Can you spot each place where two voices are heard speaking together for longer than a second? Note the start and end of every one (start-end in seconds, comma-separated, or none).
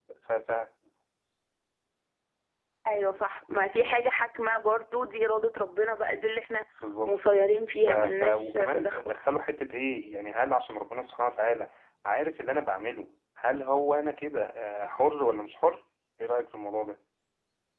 7.8-9.1